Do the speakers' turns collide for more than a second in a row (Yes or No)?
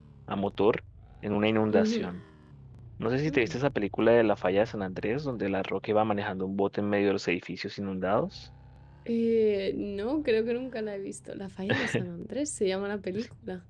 No